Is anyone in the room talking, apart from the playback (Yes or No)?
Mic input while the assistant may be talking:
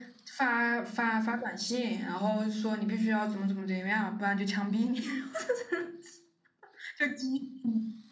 No